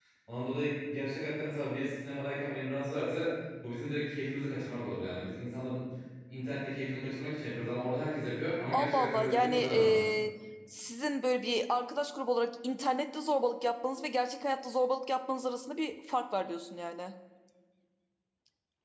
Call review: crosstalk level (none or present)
present